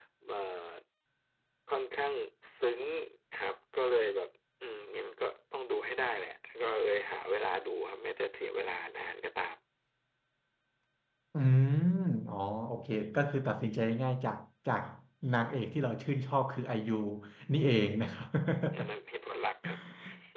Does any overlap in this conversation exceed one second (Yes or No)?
No